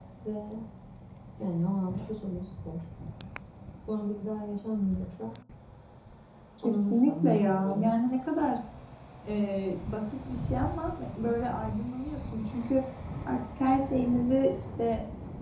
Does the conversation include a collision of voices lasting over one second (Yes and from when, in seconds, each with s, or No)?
Yes, from 6.6 s